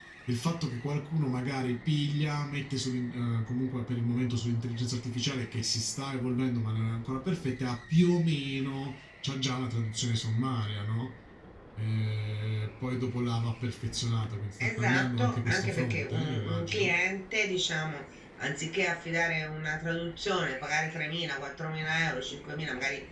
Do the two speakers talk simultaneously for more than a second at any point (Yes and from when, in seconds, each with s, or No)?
Yes, from 14.6 s